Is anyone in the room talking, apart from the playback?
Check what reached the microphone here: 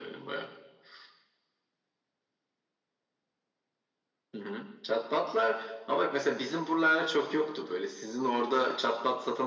No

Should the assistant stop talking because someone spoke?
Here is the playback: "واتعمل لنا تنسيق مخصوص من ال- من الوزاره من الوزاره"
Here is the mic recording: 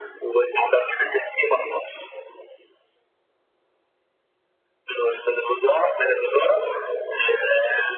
No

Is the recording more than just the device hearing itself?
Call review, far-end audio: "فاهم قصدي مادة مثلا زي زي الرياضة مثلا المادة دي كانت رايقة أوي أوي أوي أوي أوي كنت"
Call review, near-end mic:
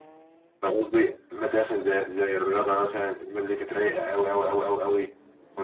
No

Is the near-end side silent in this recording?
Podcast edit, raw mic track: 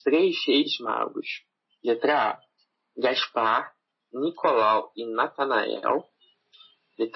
Yes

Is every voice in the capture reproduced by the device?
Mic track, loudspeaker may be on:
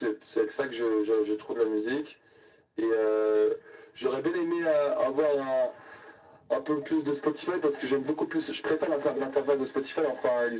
Yes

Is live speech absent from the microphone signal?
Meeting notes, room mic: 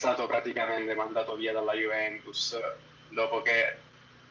Yes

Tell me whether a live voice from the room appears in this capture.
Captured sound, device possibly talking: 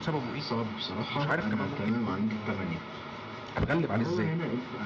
Yes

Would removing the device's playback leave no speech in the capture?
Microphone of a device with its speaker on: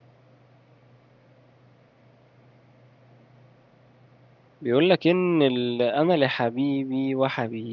No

